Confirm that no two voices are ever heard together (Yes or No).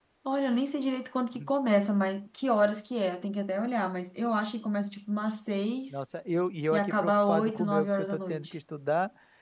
No